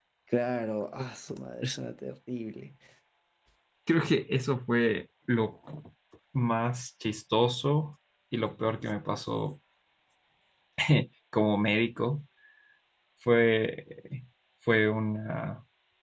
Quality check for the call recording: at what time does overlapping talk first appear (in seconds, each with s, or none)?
none